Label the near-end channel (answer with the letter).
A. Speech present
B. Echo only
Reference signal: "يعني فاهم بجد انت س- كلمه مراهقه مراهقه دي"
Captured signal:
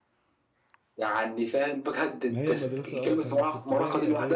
A